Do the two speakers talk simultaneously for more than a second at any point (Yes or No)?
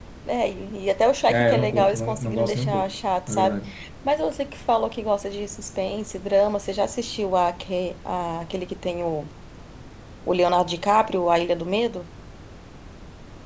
Yes